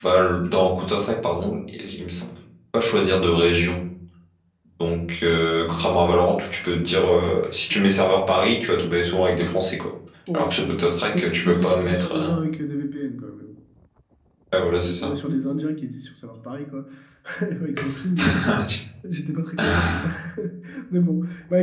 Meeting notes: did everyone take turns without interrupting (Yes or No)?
No